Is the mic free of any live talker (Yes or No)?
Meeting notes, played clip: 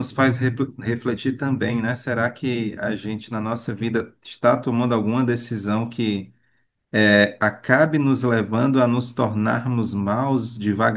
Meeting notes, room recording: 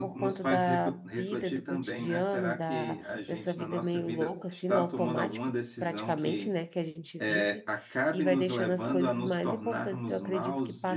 No